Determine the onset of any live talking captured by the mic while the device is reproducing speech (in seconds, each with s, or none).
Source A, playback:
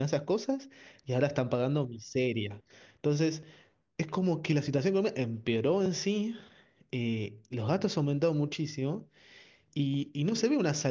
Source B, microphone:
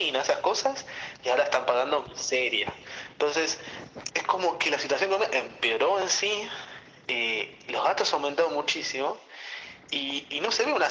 none